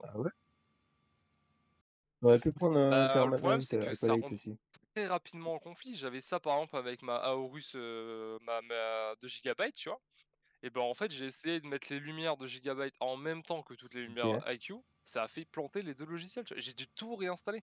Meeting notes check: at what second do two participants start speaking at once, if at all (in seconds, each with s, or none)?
2.9 s